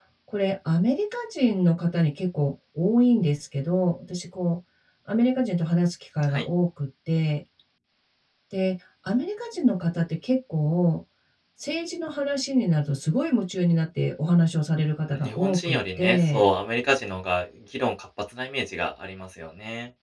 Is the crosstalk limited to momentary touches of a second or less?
No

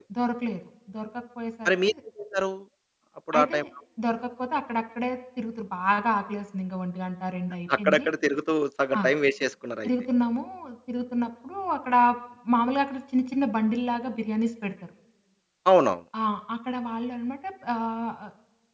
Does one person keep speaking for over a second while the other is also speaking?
No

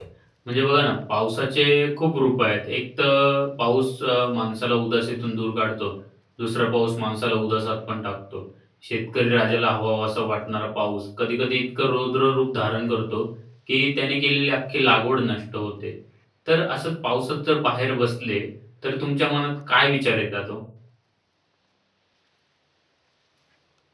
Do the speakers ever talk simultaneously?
No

